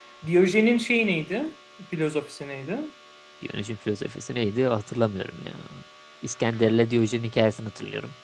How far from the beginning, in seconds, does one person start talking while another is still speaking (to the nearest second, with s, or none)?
none